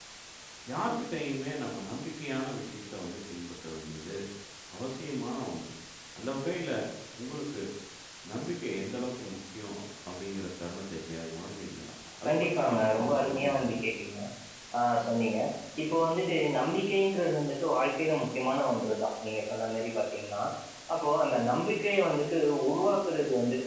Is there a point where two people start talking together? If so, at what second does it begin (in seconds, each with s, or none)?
12.2 s